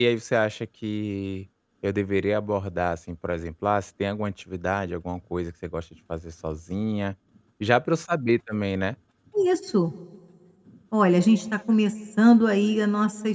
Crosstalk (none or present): none